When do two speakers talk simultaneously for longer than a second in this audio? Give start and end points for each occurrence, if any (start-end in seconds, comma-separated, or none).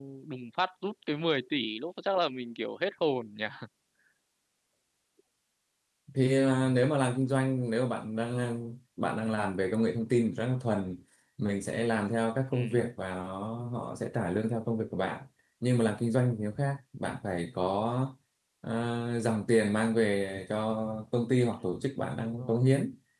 none